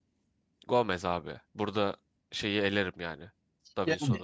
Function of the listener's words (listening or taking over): listening